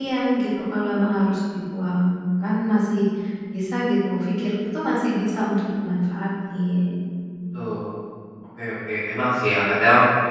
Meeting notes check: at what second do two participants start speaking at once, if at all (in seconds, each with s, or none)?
none